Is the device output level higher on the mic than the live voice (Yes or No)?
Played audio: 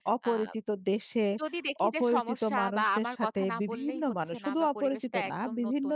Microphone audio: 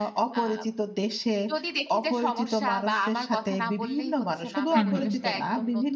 No